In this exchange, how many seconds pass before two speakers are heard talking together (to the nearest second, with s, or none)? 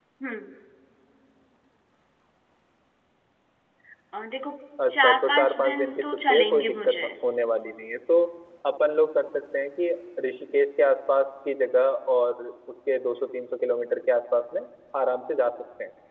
5 s